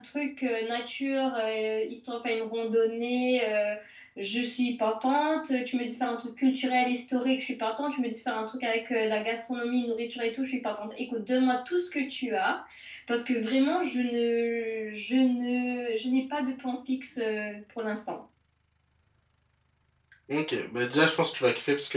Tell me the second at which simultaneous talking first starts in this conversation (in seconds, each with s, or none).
none